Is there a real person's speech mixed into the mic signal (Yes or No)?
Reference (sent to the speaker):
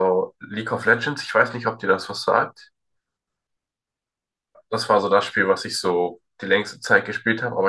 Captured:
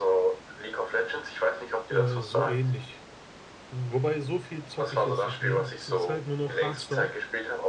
Yes